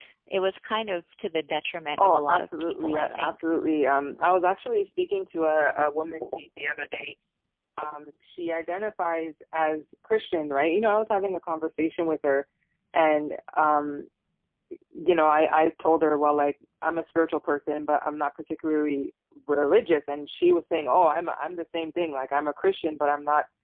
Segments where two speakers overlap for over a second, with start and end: 2.0-3.4

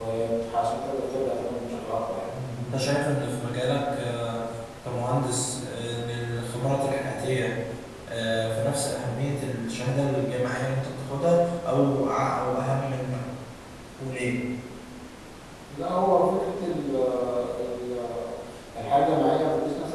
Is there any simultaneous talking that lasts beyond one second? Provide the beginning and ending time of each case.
none

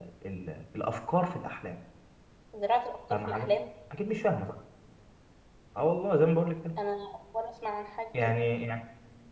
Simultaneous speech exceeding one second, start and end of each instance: none

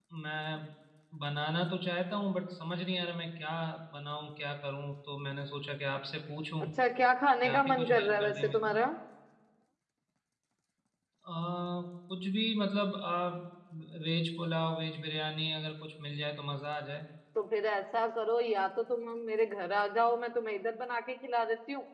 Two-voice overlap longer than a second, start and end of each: 7.4-8.7

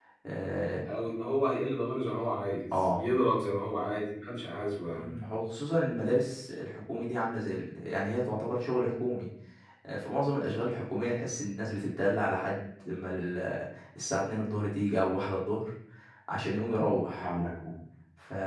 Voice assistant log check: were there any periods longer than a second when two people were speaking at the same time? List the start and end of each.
none

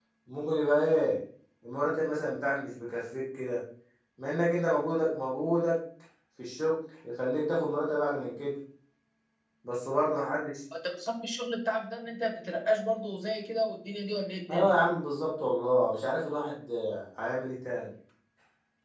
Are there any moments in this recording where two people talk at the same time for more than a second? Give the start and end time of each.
none

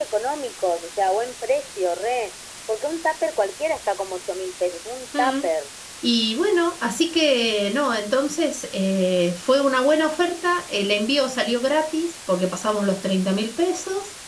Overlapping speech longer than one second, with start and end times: none

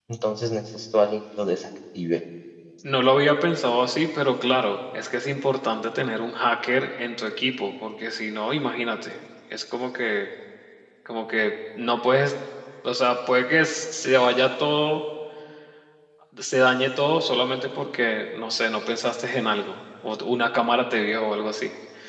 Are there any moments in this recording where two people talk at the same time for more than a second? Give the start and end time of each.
none

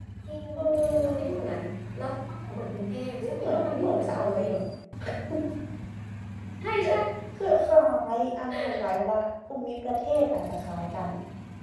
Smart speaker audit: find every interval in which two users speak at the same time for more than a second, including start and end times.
3.2-4.4

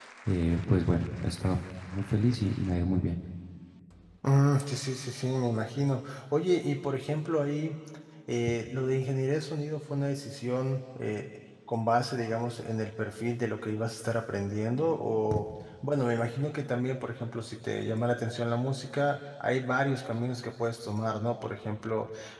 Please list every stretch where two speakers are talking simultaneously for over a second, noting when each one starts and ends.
none

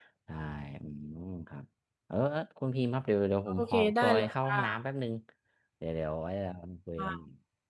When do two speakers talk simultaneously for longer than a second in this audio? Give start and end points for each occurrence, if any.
3.5-4.8

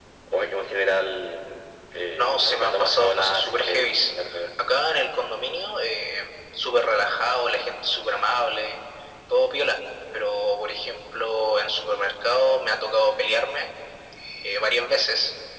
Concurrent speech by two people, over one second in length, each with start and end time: 2.2-4.1

